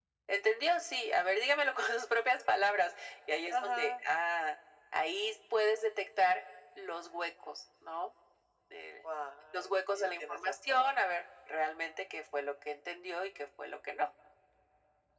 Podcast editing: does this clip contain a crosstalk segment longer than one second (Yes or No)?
Yes